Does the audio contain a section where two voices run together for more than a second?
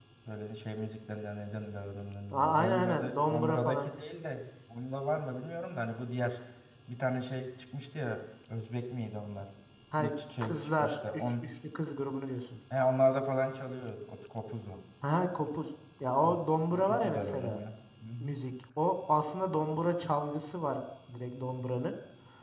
Yes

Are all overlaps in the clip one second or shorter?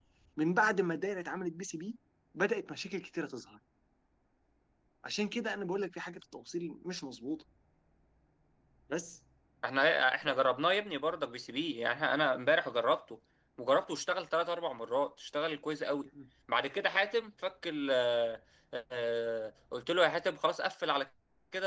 Yes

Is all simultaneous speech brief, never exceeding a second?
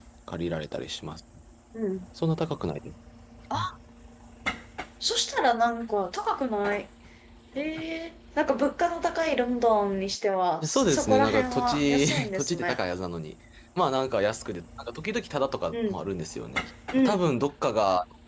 No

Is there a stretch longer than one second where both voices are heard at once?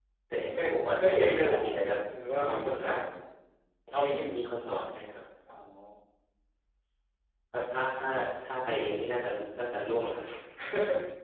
Yes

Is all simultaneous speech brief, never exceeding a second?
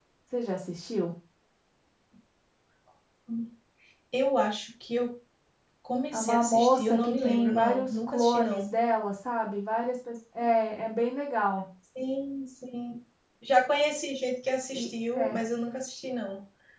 No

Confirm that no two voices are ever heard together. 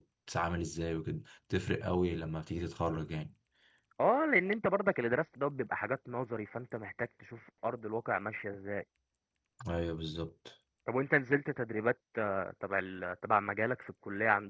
Yes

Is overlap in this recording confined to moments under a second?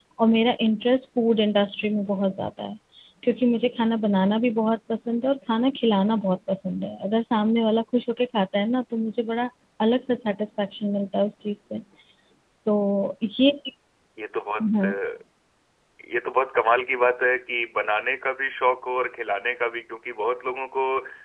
Yes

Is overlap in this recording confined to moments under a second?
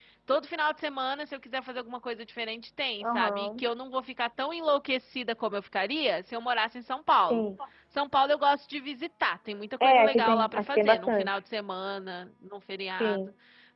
No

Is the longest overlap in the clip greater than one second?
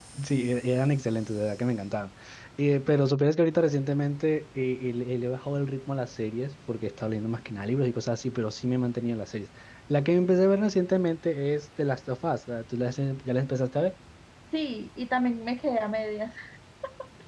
No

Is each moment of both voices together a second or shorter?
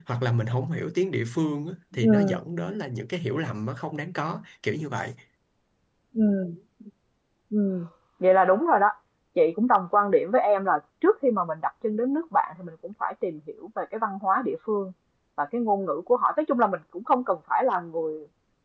Yes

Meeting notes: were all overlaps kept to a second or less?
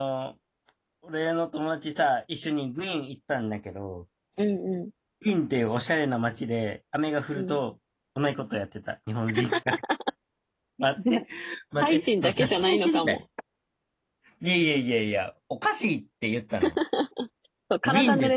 No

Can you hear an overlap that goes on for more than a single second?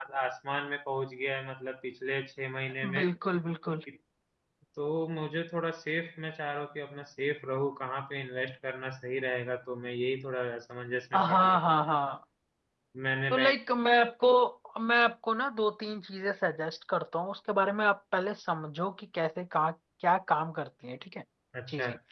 No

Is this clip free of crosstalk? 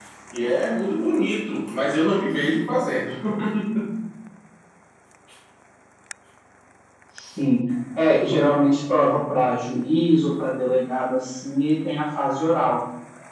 Yes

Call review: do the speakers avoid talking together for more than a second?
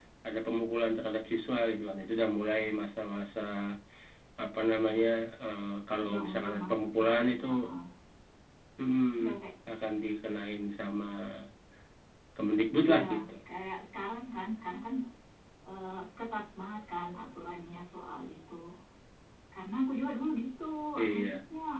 No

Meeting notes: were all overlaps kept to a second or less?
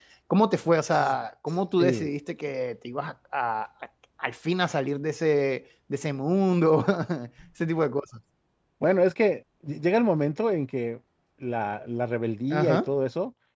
Yes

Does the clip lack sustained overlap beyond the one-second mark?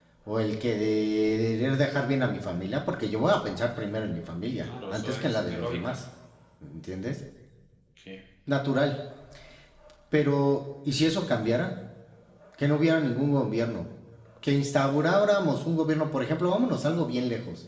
No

